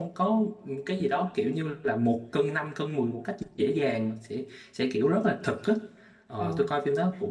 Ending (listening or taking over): listening